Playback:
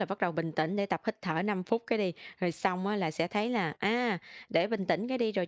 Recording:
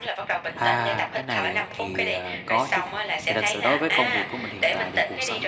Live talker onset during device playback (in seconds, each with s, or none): 0.5 s